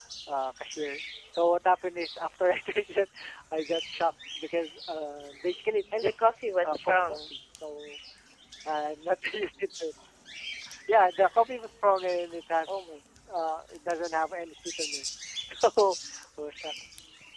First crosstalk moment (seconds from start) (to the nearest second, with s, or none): 6 s